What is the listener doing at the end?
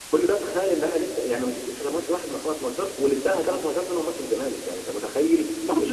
taking over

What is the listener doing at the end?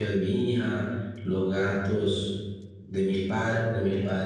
listening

